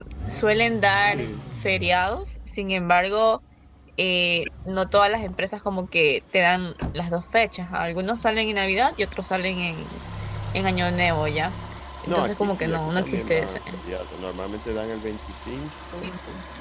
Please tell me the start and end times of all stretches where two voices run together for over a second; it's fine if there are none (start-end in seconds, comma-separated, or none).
12.1-13.6